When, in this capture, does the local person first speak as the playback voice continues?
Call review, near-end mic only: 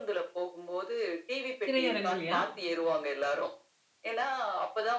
1.6 s

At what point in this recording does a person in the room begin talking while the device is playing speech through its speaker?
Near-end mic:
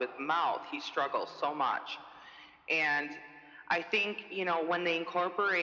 none

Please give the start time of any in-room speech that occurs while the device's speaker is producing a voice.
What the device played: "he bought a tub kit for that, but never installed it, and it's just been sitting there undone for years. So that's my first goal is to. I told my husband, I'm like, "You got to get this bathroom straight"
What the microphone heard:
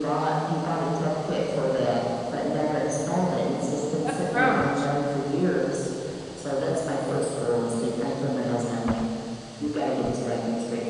4.0 s

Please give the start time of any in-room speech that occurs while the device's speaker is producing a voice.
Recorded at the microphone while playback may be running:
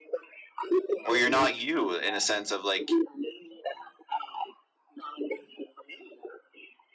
1.0 s

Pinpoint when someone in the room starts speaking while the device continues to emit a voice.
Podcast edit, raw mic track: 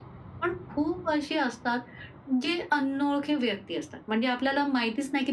none

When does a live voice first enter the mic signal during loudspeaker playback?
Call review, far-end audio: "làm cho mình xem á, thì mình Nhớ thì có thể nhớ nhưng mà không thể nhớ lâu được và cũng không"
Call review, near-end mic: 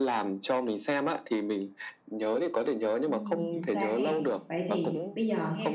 3.0 s

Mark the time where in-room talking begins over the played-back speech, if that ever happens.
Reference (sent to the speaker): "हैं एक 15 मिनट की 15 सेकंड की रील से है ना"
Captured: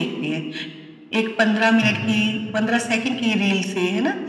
1.8 s

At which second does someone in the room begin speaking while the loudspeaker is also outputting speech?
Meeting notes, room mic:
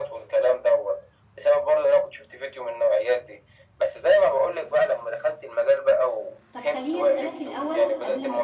6.5 s

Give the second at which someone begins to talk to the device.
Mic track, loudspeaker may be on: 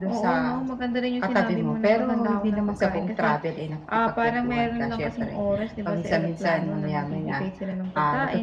none

